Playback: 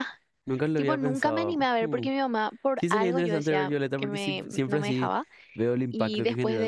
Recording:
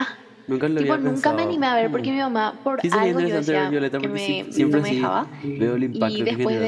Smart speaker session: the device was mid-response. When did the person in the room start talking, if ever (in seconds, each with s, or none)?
4.5 s